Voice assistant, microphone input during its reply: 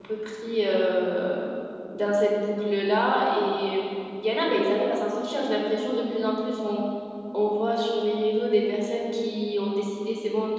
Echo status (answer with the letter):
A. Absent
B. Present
A